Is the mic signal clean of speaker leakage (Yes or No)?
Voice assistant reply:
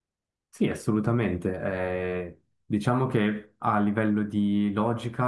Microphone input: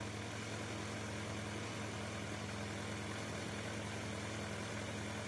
Yes